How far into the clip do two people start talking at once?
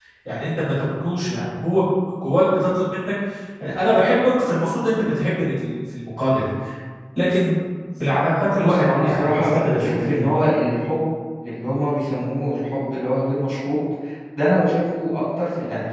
8.6 s

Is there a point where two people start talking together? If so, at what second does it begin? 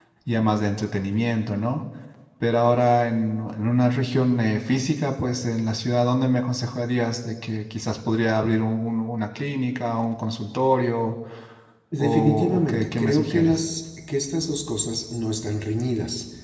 12.0 s

